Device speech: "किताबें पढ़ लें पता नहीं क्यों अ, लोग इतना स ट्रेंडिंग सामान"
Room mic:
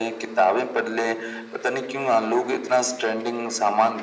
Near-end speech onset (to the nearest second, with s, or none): none